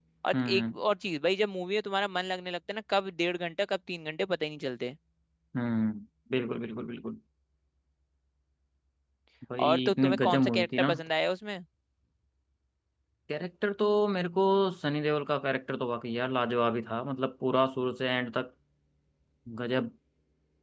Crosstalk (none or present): present